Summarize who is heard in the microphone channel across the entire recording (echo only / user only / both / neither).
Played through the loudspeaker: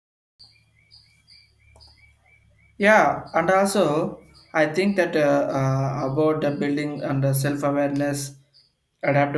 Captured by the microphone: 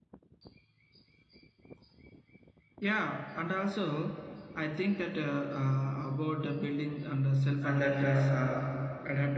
both